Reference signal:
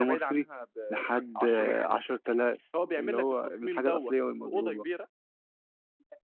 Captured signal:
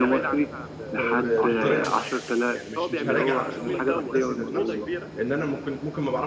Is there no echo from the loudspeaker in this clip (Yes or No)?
No